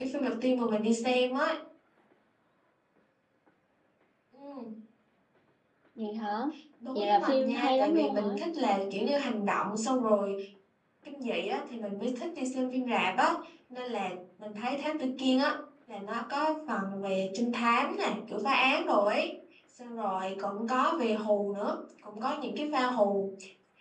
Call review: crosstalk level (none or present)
present